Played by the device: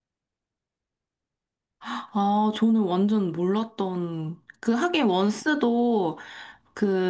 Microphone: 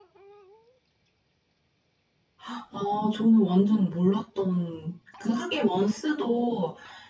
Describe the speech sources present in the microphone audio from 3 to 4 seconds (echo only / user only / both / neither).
echo only